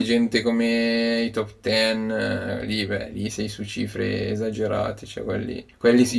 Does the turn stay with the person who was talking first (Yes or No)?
Yes